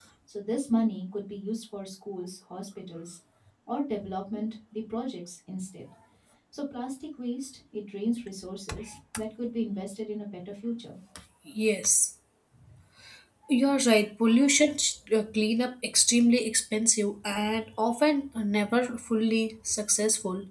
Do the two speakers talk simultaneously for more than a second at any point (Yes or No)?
No